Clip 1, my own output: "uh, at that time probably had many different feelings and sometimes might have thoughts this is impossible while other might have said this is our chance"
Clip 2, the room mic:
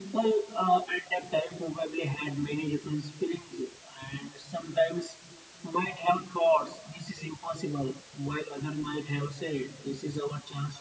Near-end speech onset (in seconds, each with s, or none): none